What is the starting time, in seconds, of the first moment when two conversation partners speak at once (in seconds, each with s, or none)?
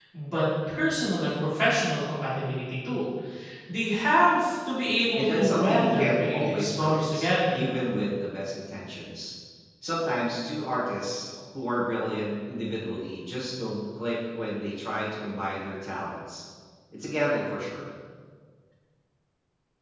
5.2 s